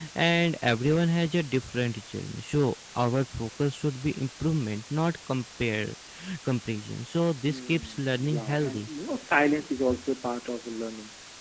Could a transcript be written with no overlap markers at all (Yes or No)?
No